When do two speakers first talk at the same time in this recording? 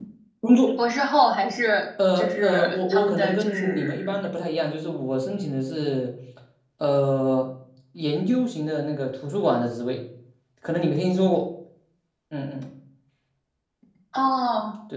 2.0 s

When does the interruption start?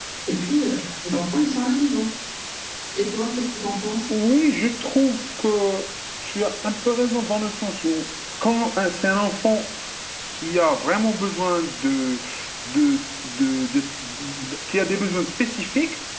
none

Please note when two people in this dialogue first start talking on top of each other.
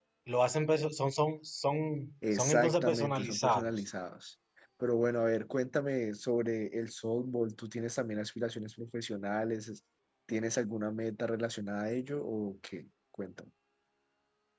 2.3 s

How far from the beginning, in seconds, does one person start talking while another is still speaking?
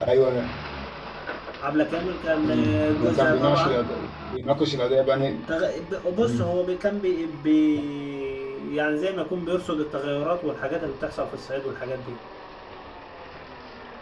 2.4 s

